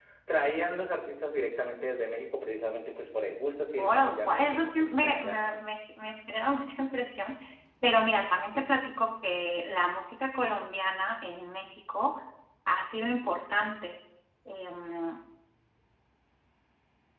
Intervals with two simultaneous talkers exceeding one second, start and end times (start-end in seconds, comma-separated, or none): 3.8-5.4